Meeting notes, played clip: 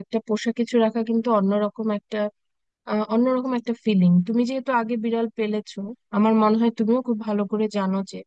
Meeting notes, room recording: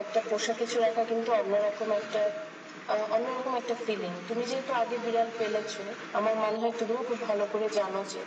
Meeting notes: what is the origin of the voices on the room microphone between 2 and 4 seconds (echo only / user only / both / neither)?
echo only